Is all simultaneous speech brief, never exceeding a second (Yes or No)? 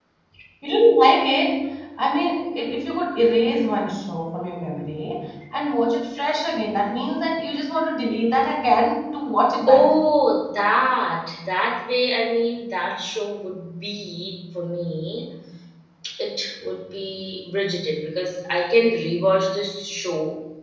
Yes